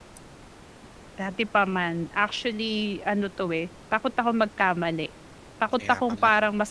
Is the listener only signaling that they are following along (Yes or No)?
Yes